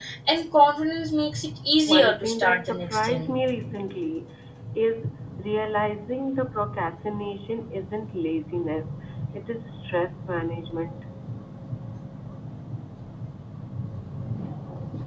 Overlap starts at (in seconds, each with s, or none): 1.9 s